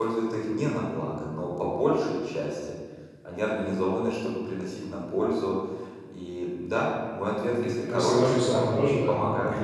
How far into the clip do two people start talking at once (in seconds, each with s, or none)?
7.5 s